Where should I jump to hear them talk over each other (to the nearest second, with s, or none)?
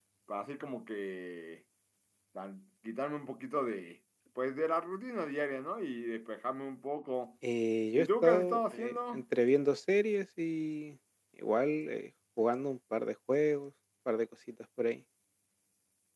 8 s